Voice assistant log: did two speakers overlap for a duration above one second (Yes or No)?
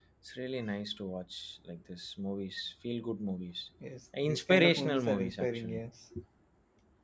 Yes